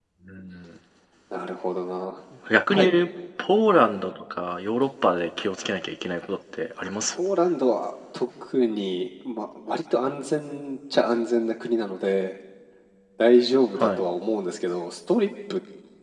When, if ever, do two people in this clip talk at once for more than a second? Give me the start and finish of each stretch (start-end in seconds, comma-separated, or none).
none